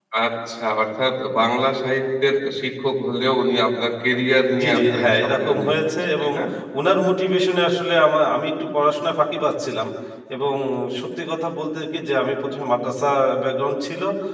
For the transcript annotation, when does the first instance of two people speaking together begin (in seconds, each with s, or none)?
4.5 s